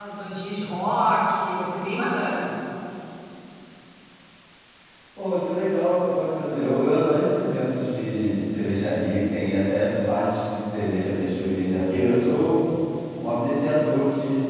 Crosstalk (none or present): none